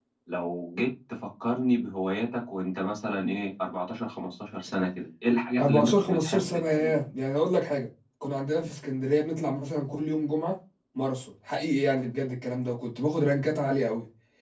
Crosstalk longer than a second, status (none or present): present